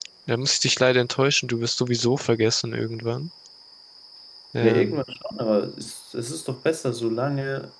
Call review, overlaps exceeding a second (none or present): none